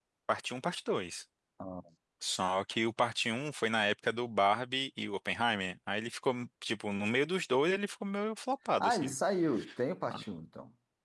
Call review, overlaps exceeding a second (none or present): none